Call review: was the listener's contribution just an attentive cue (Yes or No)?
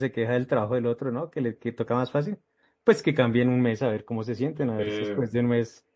Yes